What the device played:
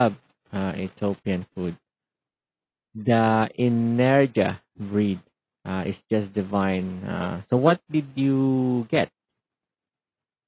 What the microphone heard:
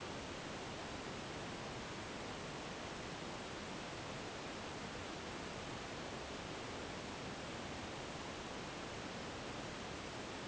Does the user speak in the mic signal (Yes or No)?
No